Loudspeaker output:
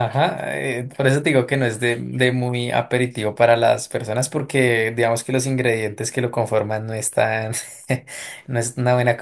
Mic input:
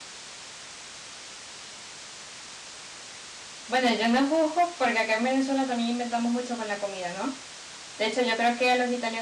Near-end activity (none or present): present